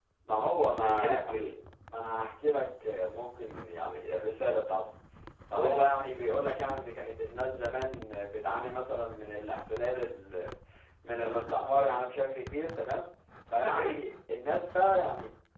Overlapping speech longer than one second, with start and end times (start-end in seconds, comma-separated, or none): none